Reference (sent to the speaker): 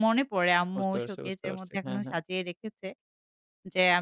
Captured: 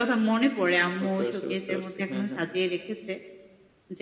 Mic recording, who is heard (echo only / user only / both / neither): echo only